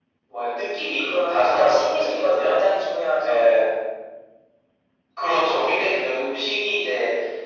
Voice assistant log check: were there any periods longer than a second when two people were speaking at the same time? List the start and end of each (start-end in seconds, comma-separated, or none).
1.0-2.6